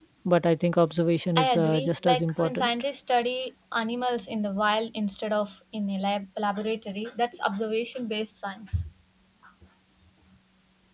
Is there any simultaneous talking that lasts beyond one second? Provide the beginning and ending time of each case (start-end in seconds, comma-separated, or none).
1.4-2.7